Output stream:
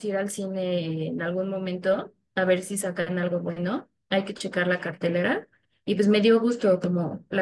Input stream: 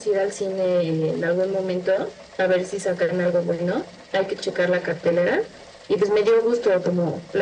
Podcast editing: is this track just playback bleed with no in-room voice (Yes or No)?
Yes